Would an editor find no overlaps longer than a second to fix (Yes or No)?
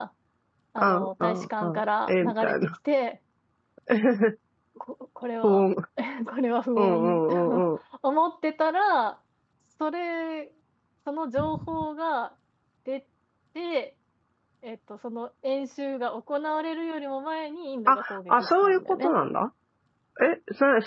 No